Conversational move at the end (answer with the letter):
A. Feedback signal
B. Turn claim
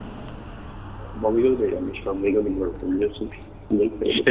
B